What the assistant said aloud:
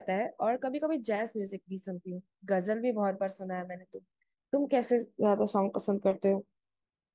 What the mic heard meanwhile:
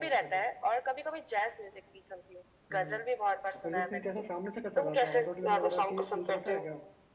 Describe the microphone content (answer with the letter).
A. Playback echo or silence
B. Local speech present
B